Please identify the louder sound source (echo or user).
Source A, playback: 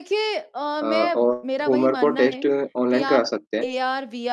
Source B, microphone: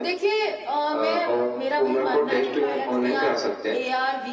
echo